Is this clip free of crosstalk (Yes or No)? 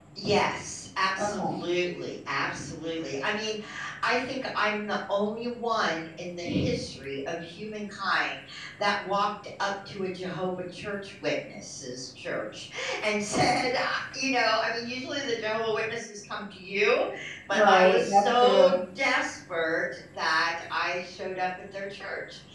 No